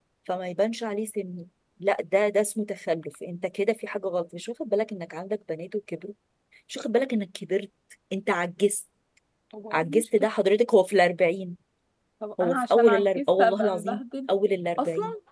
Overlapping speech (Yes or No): Yes